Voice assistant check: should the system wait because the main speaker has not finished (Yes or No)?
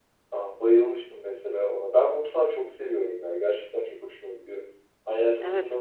Yes